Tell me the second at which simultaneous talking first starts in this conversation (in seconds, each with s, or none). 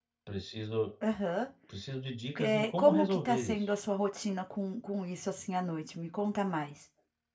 2.4 s